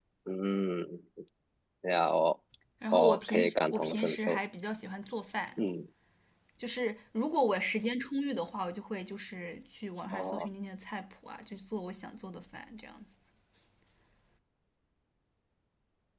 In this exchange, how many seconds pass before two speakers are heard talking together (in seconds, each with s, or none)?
2.9 s